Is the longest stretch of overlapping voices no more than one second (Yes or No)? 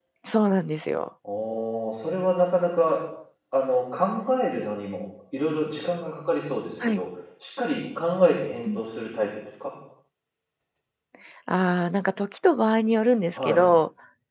Yes